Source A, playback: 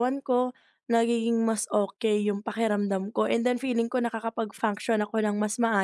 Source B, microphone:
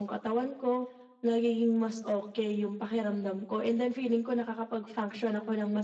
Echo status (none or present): present